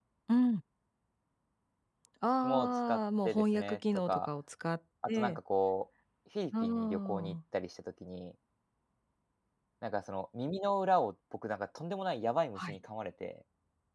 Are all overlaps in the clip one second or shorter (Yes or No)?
No